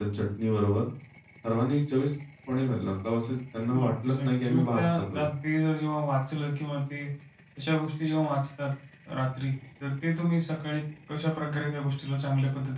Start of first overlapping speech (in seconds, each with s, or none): 3.7 s